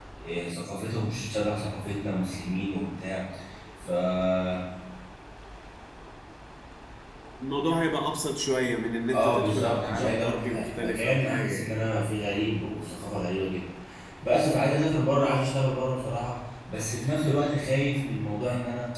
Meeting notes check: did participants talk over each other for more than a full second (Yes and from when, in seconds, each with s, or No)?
Yes, from 9.1 s